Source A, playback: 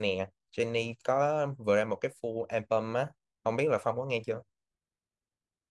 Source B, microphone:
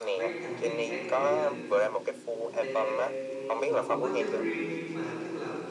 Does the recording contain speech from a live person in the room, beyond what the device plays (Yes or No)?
Yes